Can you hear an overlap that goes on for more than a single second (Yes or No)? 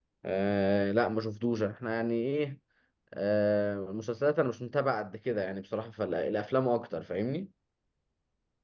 No